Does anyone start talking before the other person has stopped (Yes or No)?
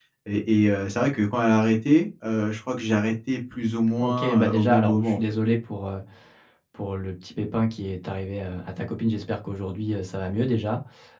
Yes